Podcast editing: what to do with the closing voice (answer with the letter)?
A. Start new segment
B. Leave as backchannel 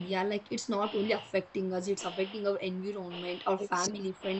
B